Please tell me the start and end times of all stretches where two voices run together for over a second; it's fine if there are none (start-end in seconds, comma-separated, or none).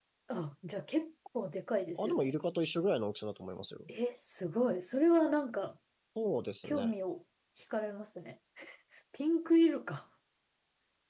none